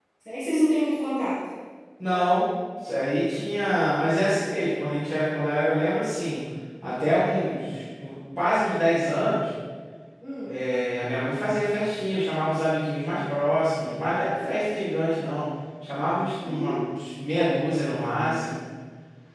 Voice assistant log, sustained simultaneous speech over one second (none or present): none